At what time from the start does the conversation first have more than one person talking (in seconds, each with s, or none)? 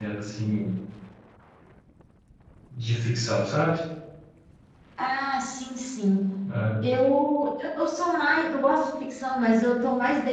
none